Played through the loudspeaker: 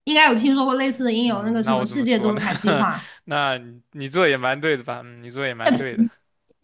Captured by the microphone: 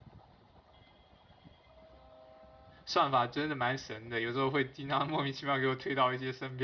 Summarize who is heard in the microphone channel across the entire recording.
user only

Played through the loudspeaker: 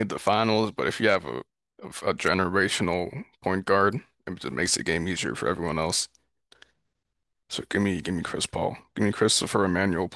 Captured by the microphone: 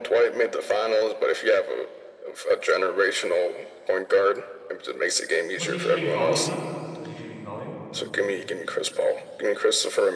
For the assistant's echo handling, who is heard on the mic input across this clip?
both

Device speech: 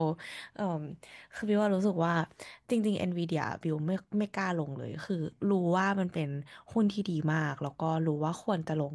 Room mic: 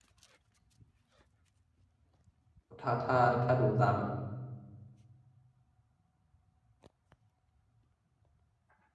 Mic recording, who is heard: user only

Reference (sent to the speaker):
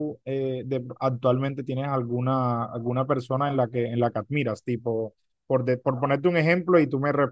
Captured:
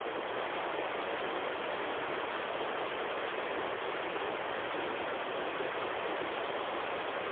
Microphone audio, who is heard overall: neither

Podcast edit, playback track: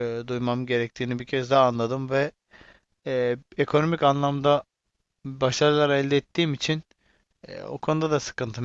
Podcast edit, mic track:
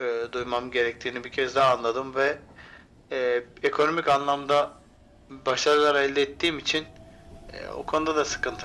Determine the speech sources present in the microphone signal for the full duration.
echo only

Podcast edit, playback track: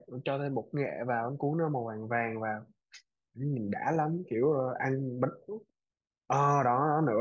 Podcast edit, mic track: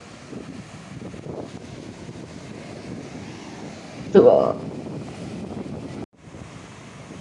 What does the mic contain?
user only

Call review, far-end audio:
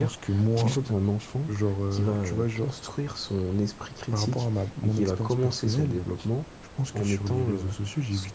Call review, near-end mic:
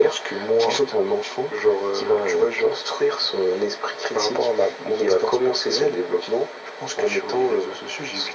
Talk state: echo only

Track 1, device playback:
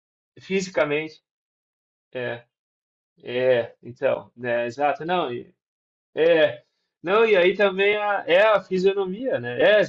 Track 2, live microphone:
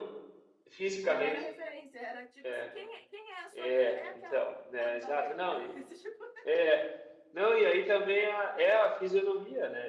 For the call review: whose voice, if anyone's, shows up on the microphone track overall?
both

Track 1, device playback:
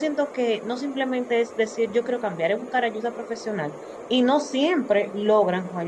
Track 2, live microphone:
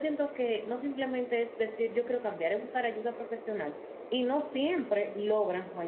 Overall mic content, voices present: echo only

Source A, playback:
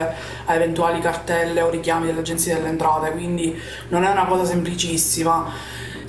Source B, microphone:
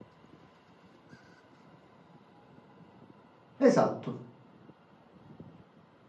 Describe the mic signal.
user only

